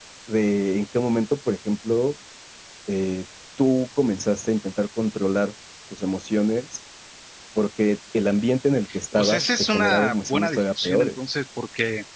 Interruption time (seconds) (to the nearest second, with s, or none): 9 s